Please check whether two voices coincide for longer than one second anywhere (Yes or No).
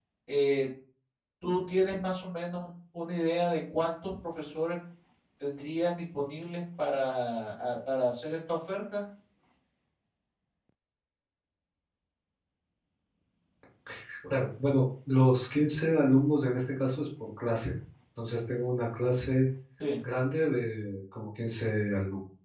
No